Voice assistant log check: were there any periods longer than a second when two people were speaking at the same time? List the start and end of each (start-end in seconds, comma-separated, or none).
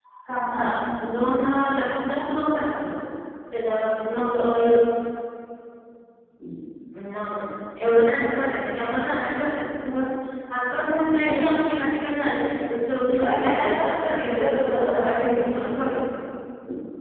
13.2-15.4